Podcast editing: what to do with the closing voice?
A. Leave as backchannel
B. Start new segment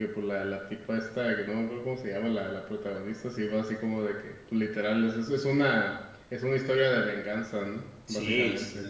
B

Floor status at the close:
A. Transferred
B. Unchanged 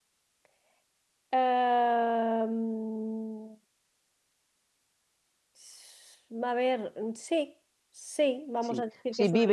A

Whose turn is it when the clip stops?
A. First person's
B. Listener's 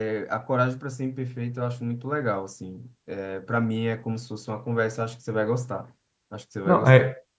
B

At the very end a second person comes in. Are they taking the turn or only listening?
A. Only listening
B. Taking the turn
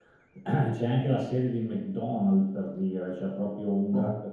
A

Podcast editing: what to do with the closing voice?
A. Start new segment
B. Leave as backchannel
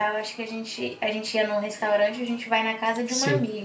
B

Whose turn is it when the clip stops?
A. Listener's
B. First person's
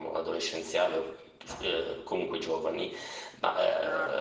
B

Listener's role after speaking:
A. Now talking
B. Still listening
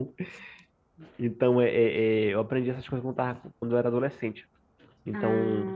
B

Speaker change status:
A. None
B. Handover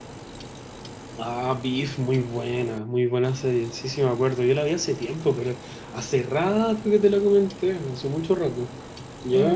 B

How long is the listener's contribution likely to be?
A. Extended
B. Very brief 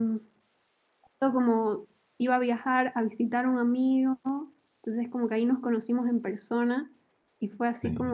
B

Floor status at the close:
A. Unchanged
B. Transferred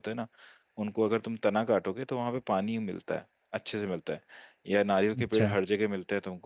A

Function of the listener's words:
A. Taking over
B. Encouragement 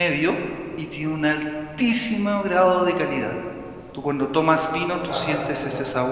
B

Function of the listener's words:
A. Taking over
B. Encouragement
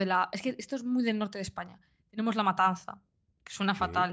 B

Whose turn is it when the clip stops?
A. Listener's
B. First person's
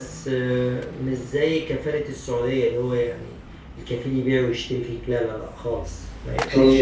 A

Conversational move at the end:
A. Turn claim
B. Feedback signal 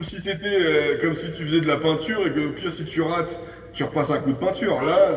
A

